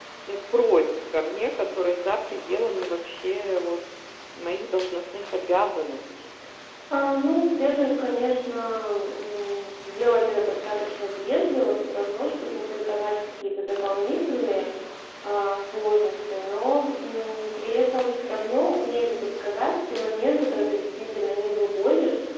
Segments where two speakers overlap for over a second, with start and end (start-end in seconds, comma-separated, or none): none